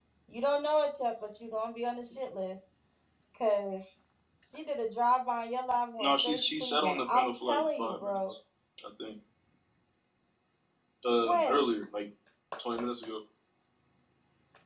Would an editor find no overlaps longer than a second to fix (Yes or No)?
No